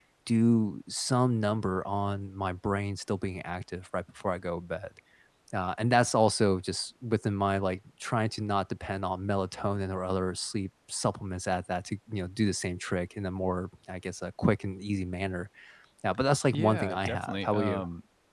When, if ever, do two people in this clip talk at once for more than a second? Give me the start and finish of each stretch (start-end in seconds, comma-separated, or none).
16.5-17.8